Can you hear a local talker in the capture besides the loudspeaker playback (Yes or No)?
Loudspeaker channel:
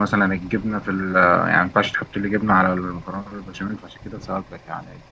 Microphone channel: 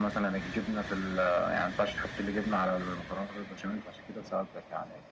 No